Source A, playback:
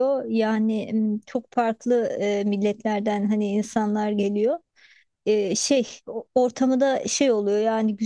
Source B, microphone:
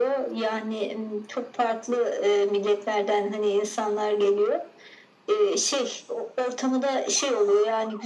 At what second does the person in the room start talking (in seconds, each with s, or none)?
none